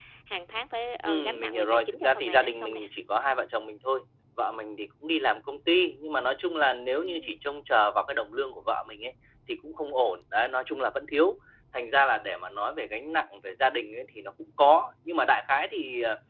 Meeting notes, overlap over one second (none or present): present